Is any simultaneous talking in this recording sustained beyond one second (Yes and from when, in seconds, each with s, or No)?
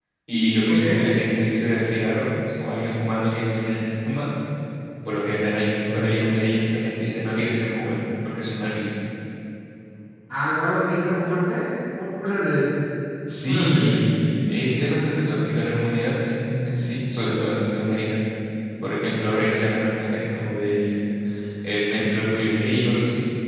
No